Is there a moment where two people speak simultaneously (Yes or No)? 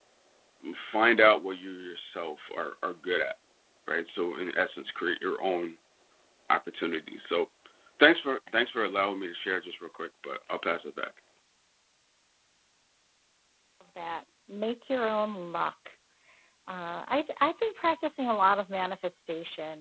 No